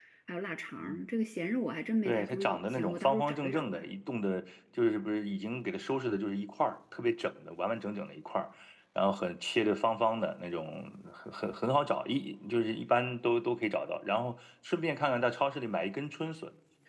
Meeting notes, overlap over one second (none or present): present